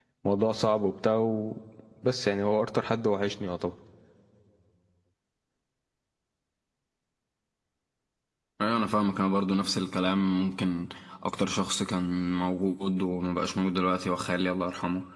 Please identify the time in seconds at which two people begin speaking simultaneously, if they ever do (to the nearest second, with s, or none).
none